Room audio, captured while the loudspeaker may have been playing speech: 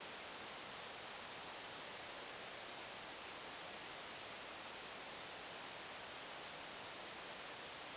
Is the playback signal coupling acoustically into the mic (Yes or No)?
No